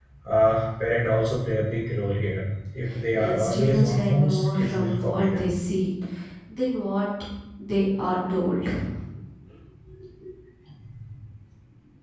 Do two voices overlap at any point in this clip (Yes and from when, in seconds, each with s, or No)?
Yes, from 3.2 s